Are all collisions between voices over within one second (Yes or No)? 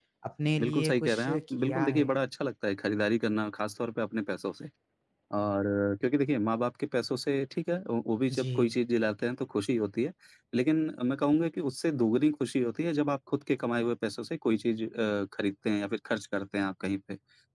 No